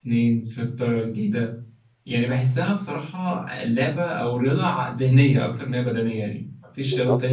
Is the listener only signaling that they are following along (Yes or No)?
Yes